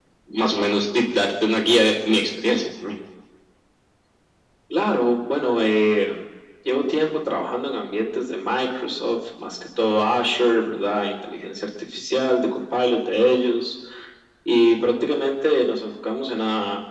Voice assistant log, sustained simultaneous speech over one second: none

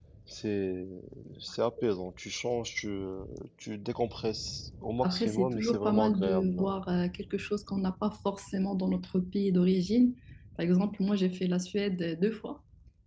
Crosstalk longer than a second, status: present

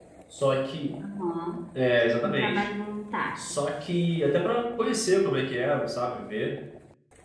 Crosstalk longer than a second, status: none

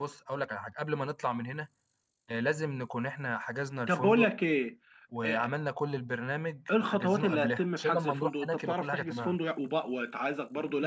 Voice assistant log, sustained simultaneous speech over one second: present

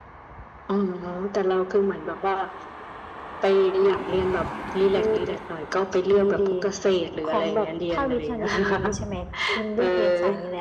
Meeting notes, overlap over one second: present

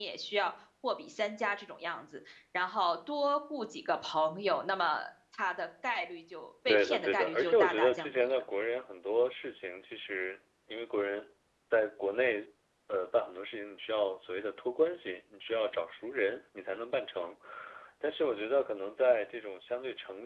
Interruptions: present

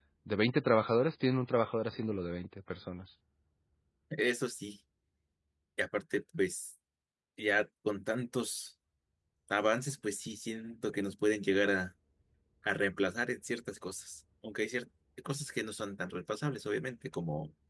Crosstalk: none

